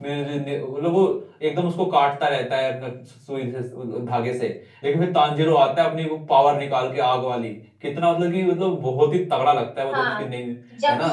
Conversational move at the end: taking over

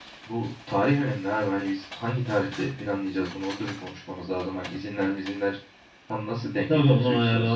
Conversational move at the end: taking over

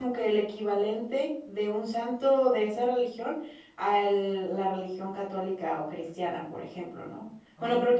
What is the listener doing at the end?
listening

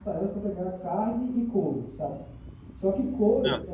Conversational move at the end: listening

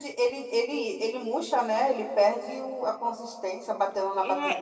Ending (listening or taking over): taking over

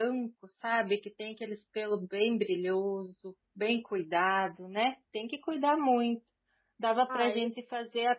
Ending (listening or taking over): listening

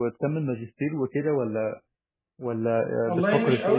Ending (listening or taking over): taking over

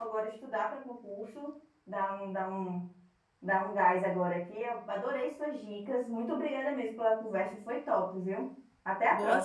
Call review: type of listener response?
taking over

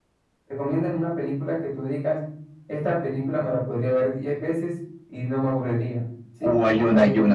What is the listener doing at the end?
taking over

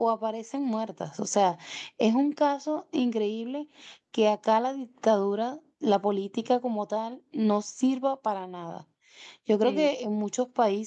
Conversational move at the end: listening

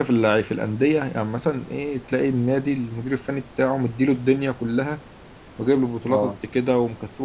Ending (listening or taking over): listening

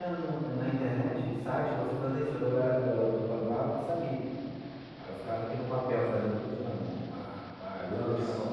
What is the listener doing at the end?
listening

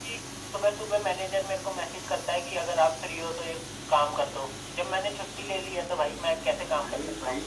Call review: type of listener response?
taking over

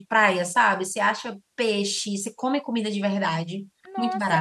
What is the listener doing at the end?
taking over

